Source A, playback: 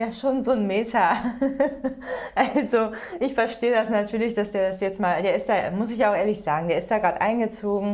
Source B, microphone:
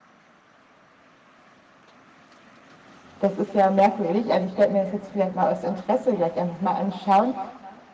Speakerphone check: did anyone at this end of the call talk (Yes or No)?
Yes